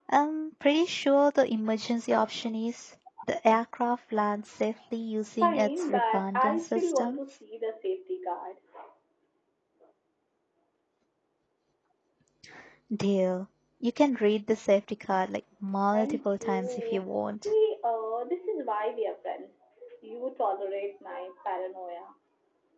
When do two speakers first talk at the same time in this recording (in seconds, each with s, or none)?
5.4 s